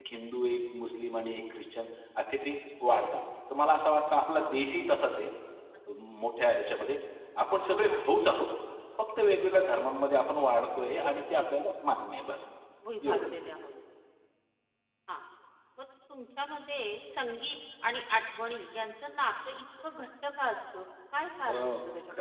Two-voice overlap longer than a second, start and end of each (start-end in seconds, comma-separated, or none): none